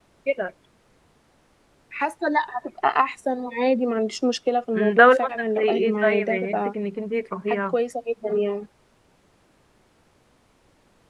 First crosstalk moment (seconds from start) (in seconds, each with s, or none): 4.8 s